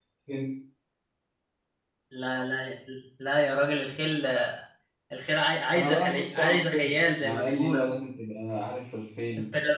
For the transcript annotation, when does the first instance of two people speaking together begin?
5.7 s

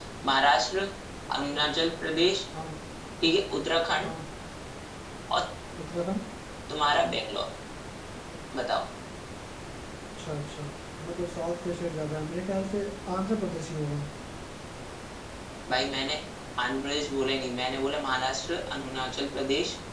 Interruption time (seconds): none

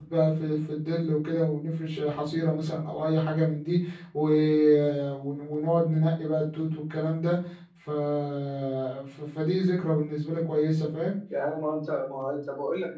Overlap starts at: none

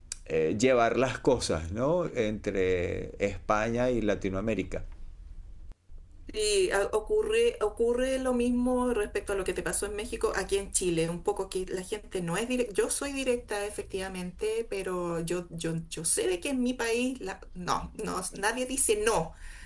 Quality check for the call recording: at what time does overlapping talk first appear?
none

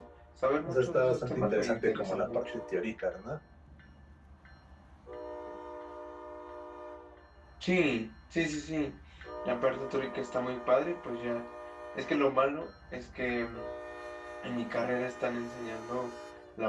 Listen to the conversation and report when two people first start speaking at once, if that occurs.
0.7 s

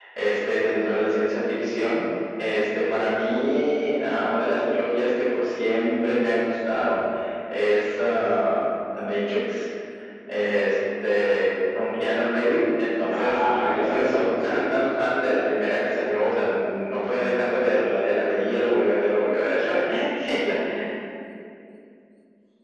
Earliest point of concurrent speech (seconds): 13.1 s

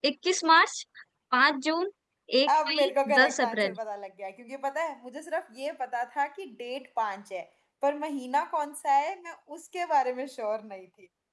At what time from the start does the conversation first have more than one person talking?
2.5 s

